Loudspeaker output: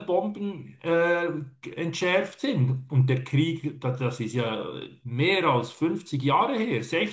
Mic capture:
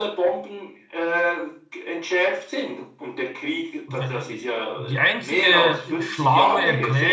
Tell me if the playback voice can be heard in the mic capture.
Yes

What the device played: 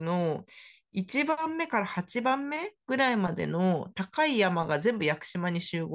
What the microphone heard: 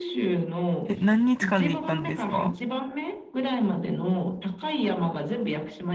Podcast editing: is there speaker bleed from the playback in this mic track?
Yes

